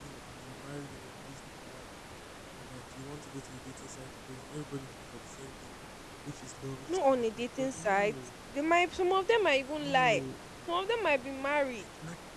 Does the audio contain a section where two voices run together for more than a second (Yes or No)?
Yes